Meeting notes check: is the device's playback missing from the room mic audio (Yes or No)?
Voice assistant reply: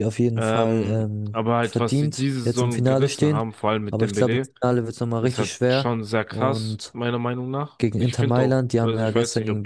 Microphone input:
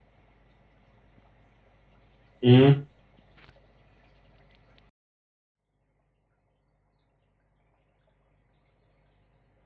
Yes